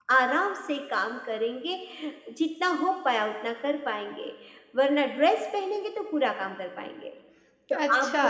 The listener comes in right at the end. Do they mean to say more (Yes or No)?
No